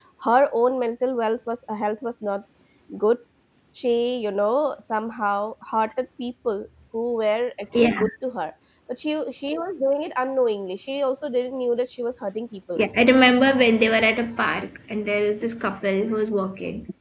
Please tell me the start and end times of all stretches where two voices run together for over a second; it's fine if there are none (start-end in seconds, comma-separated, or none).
none